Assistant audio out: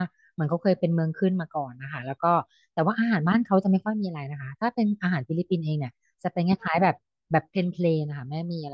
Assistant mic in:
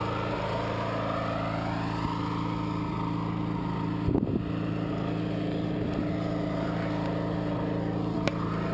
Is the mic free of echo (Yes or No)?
Yes